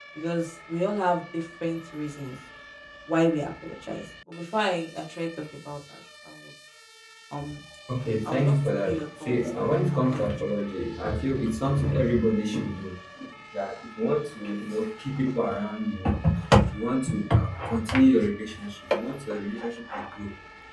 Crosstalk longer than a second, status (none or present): present